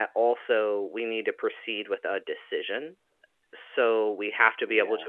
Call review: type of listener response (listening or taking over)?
listening